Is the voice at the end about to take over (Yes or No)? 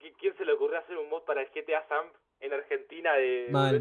Yes